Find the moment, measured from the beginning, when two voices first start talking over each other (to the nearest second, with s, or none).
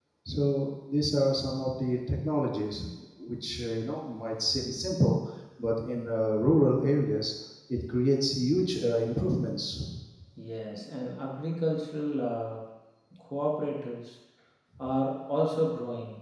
none